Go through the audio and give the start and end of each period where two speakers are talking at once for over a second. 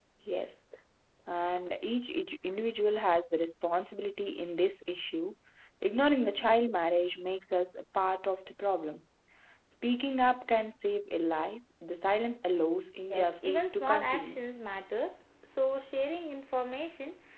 13.1-14.4

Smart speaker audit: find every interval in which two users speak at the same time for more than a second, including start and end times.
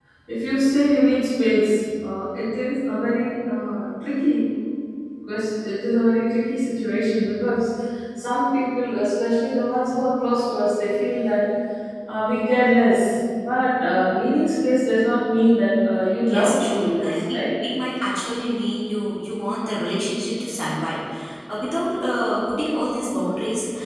16.2-17.4

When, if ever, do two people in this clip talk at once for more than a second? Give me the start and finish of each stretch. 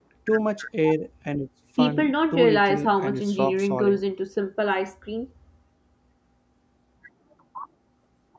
1.8-4.0

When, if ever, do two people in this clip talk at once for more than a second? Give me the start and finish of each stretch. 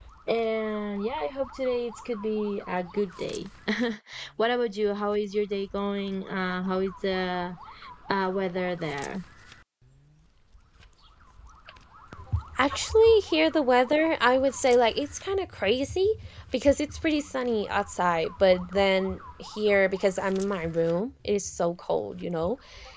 none

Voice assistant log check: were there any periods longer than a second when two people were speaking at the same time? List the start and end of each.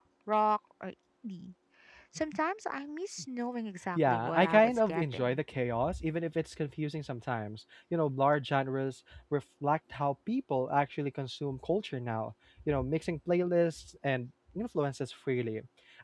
4.0-5.4

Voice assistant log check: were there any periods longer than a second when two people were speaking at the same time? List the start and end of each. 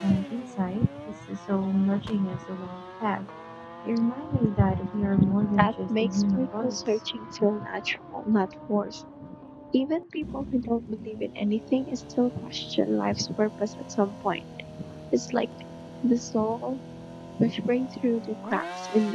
5.6-6.9

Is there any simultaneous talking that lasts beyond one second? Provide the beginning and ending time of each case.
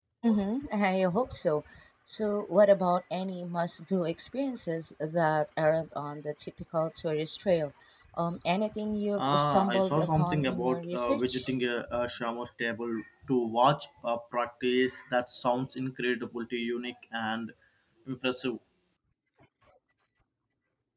9.2-11.4

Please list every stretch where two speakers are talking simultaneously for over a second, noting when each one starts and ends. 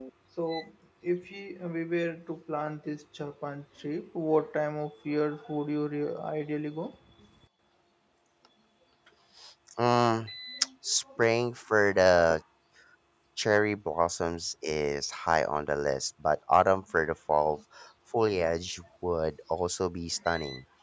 none

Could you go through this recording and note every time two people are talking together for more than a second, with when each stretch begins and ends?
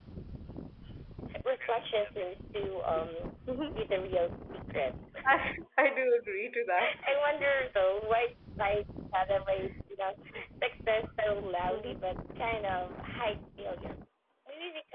none

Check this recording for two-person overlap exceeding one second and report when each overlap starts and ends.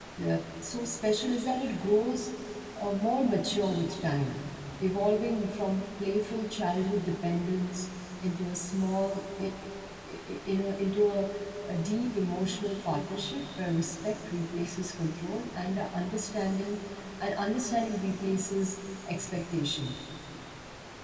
none

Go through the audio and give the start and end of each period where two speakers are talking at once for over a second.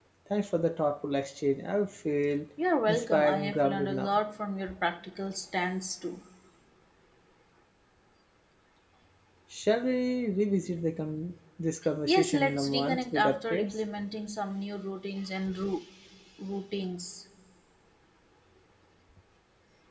2.9-4.2, 12.1-13.8

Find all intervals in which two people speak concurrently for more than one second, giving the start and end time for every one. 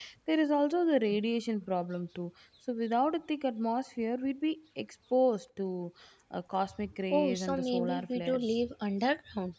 7.1-8.4

